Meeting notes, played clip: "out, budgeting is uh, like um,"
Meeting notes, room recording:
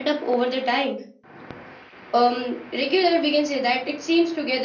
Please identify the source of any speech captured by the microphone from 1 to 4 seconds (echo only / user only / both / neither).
user only